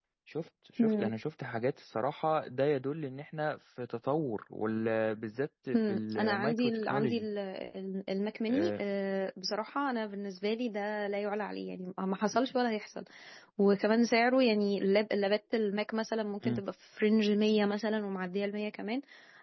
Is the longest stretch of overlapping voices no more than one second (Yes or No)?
No